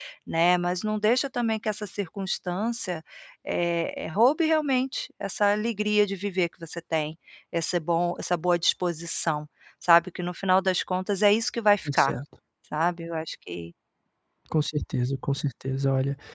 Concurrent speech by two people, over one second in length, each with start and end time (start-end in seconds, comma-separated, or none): none